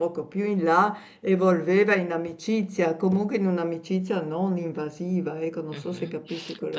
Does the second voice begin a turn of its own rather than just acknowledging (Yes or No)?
Yes